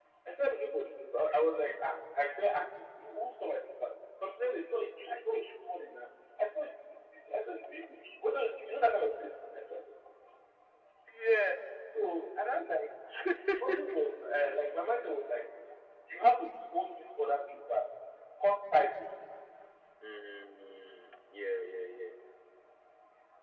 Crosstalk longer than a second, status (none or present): none